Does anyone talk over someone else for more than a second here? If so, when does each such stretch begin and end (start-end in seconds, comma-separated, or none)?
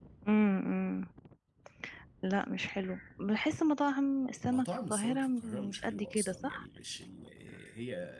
4.4-6.6